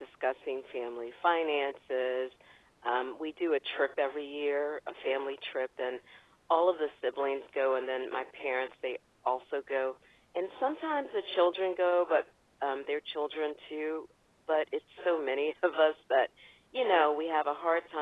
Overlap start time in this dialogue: none

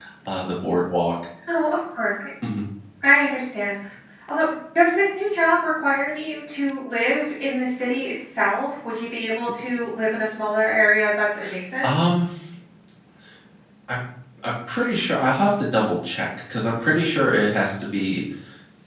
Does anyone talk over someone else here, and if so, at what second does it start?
none

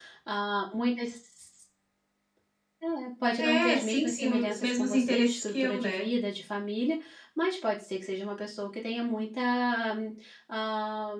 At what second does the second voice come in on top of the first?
3.4 s

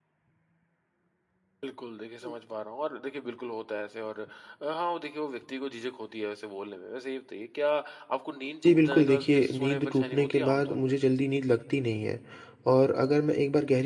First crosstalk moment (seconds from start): 8.6 s

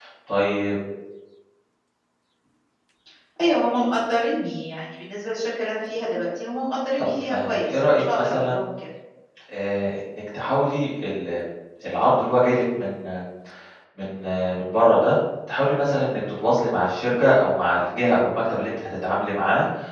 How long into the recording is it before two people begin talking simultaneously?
7.0 s

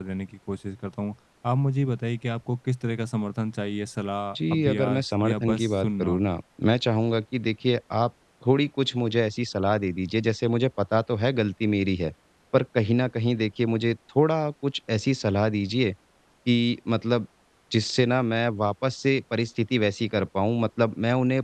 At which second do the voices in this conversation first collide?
4.4 s

